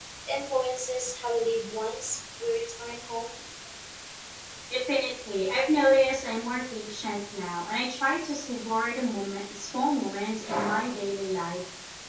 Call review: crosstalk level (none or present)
none